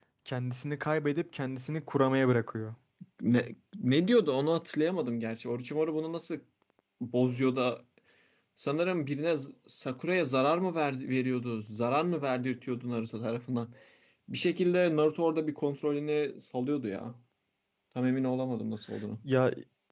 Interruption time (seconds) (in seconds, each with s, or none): none